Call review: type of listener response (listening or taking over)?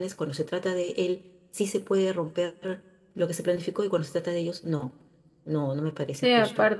taking over